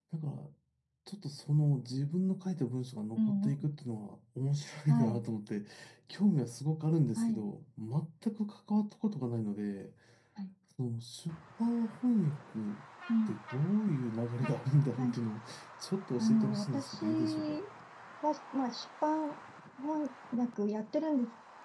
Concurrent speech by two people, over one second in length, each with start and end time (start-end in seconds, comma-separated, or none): 16.2-17.6